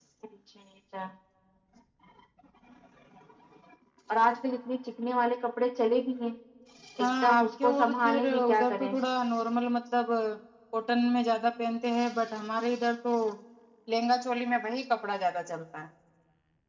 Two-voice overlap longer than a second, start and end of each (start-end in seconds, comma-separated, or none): 7.0-8.9